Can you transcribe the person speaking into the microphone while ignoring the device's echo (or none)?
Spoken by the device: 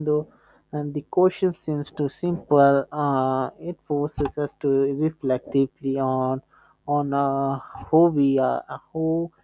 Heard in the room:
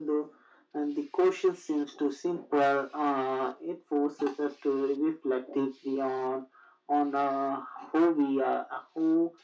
none